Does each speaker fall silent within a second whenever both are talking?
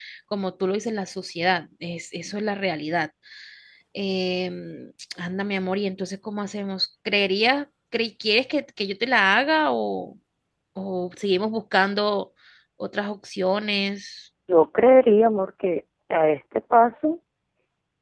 Yes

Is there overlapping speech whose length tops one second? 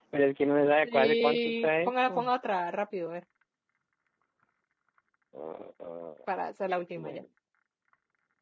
Yes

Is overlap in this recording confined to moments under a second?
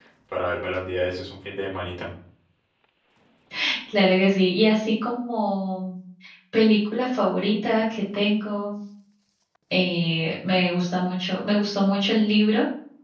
Yes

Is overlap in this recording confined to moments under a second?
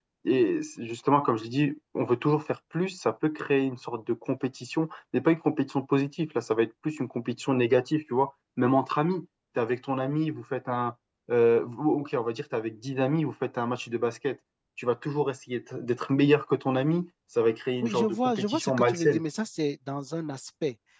No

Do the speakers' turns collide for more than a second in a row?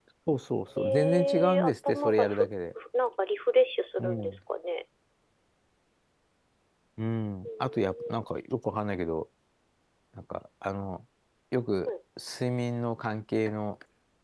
Yes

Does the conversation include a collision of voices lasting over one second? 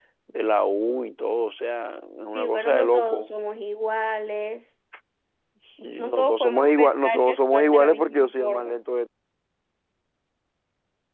Yes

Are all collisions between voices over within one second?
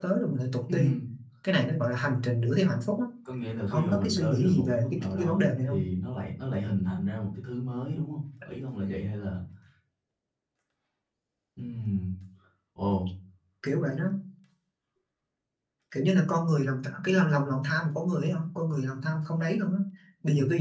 No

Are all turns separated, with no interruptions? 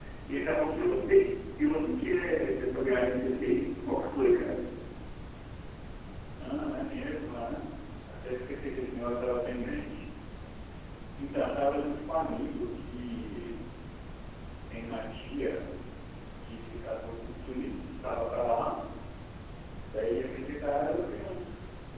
Yes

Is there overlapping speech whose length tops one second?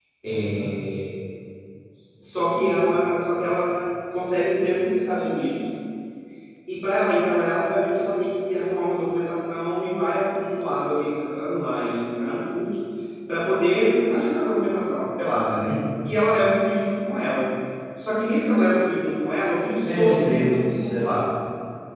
Yes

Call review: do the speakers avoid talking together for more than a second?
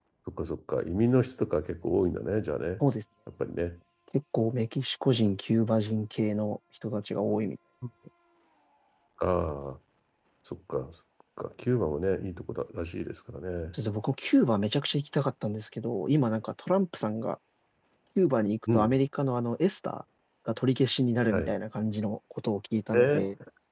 Yes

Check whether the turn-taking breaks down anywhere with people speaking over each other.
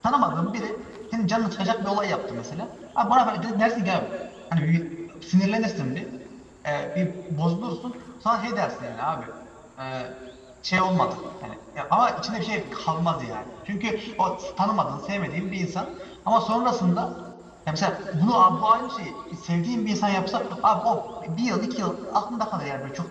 No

